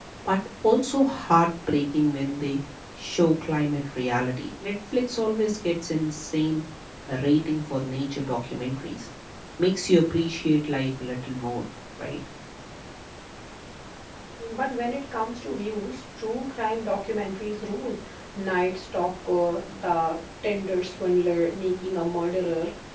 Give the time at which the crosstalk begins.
none

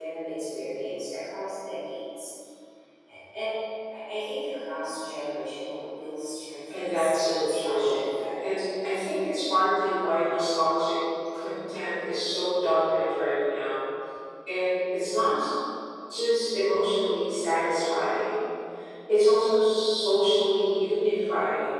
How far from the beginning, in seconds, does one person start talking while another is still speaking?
6.7 s

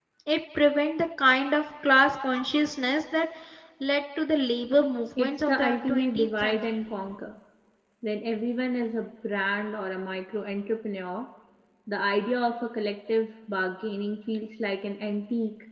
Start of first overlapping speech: 5.2 s

